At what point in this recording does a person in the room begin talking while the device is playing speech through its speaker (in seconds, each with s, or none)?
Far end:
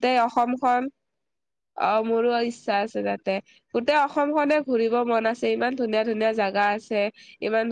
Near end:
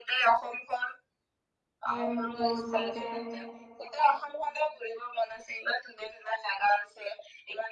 1.9 s